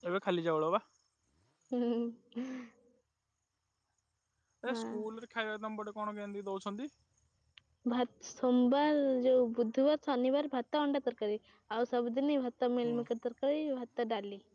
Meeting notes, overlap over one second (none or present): none